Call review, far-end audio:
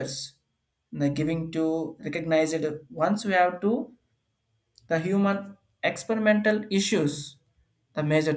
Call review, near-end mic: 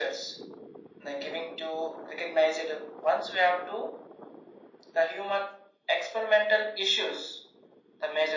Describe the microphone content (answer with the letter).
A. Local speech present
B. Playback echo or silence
B